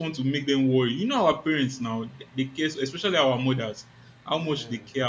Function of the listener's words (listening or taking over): listening